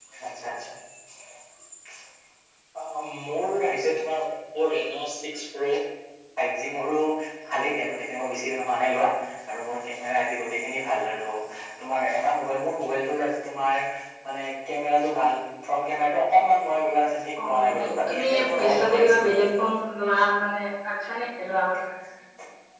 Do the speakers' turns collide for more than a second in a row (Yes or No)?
Yes